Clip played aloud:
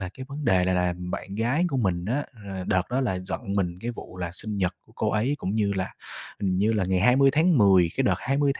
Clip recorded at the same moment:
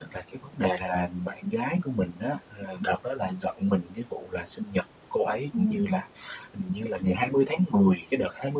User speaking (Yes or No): Yes